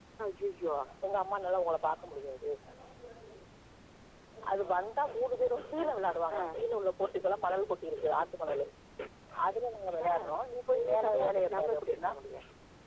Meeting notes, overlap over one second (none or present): present